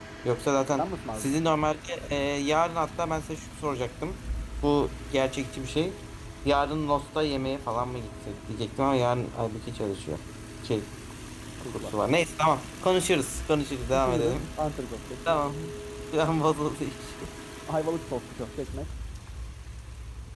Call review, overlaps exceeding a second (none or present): none